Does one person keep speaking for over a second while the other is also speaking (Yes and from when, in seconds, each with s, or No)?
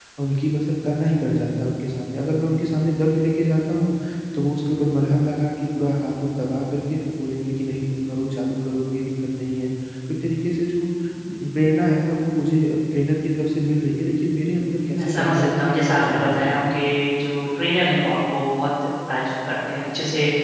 Yes, from 14.9 s